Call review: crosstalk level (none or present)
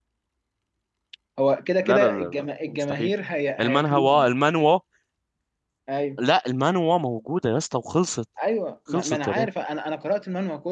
present